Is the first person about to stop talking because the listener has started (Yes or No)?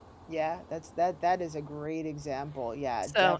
Yes